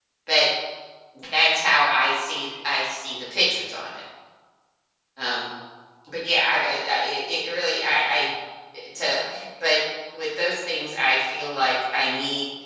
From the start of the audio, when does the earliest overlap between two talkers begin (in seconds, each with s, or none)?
none